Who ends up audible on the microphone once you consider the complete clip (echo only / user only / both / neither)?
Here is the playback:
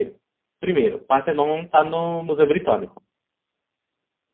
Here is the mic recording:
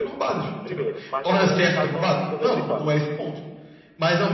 both